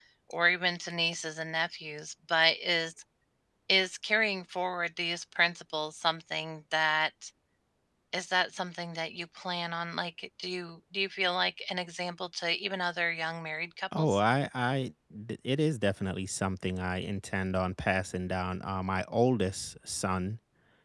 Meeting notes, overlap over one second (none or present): none